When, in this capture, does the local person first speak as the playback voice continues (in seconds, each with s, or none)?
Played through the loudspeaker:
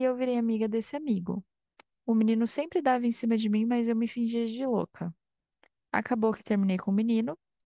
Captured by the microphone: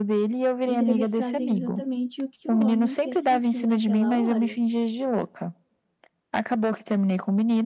0.7 s